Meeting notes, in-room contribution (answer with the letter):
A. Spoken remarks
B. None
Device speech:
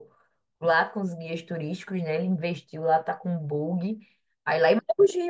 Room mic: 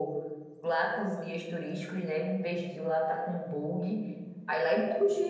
B